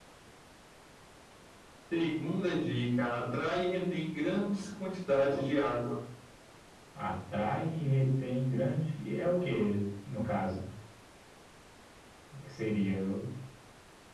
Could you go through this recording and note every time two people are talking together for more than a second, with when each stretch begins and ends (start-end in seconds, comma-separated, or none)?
none